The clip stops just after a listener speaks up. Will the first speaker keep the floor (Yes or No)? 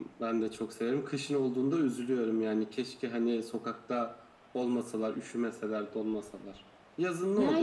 No